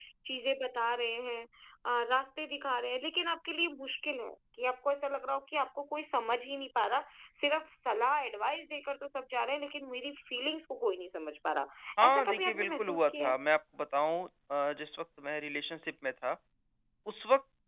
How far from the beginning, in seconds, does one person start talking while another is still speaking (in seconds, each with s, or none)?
12.1 s